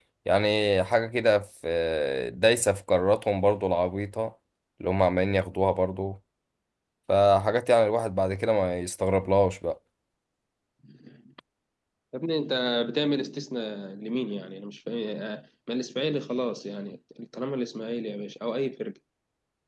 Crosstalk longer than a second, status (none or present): none